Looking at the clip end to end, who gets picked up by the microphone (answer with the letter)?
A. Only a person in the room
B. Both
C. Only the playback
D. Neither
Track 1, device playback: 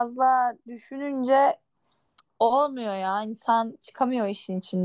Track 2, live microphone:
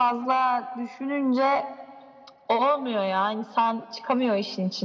C